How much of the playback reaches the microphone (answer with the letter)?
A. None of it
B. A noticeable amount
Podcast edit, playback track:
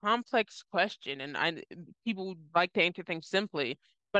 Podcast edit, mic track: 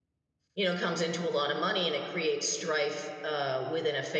A